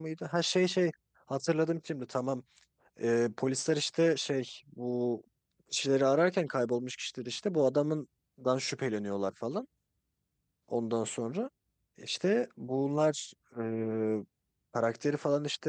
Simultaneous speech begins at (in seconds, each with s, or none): none